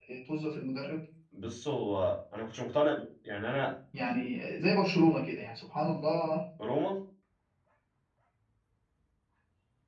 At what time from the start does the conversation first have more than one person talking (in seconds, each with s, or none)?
none